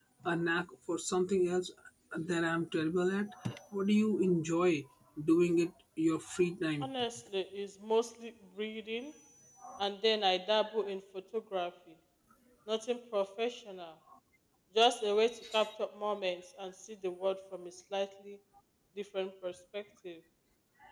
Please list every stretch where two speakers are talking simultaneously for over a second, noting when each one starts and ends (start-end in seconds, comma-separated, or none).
none